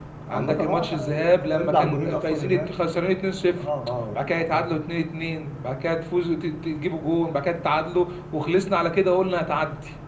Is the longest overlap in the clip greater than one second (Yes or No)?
Yes